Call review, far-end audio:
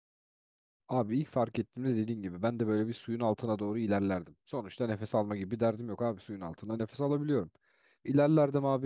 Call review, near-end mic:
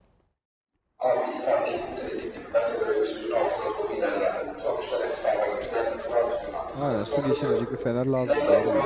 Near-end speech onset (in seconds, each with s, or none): 6.7 s